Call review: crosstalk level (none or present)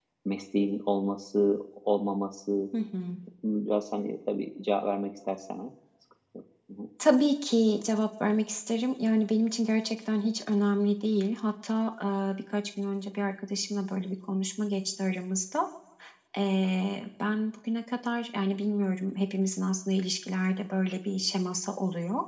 none